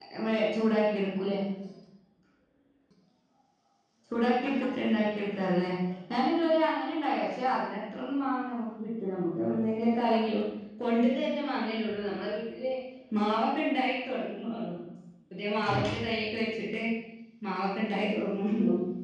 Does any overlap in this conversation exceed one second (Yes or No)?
No